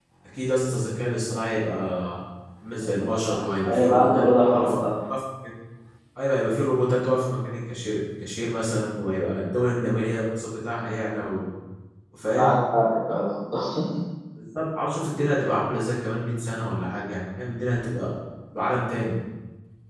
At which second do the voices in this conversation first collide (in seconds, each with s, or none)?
2.8 s